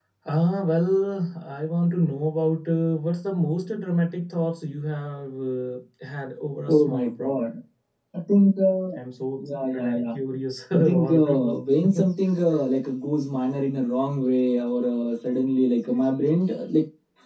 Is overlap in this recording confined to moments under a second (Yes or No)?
No